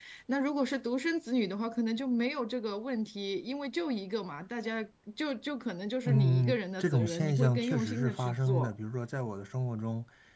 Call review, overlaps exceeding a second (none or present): present